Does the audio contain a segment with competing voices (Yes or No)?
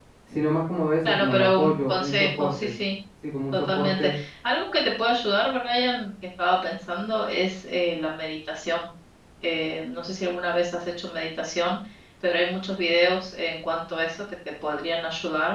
Yes